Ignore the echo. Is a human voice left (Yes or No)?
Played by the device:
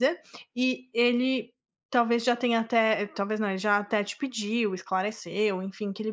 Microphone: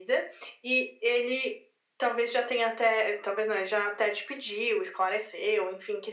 No